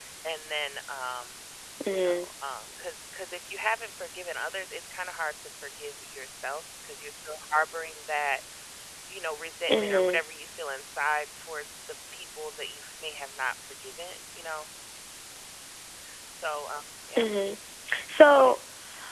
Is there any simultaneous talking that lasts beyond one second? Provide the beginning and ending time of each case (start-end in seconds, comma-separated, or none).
none